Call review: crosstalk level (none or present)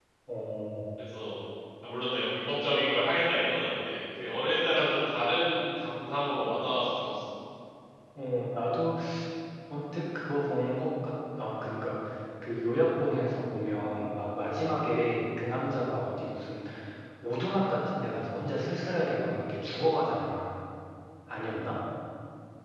none